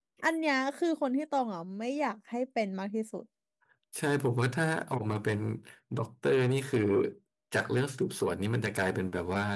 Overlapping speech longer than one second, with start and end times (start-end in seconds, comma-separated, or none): none